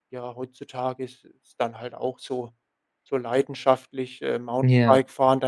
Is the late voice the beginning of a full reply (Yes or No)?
No